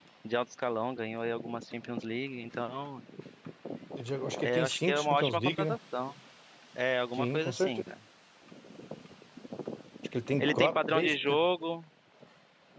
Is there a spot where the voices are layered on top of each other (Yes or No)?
Yes